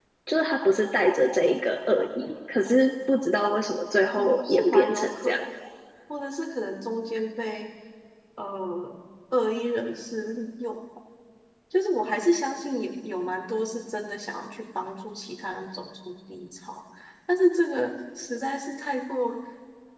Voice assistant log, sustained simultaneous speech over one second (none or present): present